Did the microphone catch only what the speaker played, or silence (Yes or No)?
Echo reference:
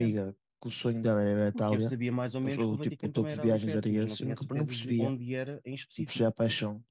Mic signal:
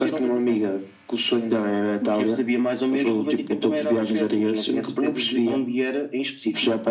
Yes